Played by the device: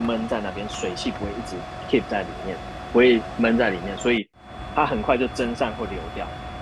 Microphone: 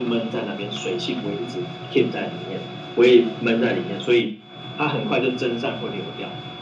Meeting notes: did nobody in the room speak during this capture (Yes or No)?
Yes